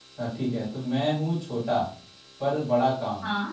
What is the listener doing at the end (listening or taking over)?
listening